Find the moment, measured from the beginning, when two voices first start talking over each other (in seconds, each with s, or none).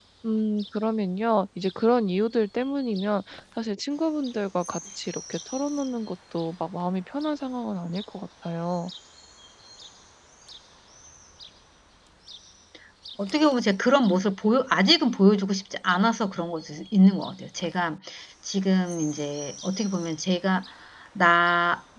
none